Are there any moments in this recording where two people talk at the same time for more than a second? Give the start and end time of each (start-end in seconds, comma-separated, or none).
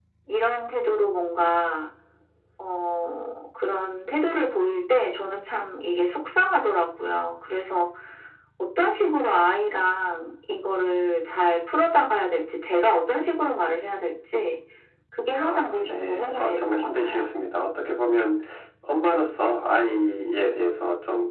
15.4-17.3